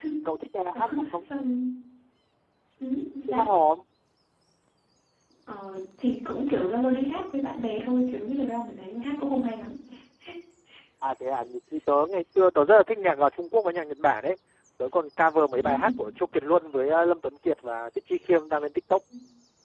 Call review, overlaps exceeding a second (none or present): none